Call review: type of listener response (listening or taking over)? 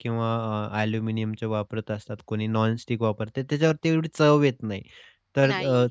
listening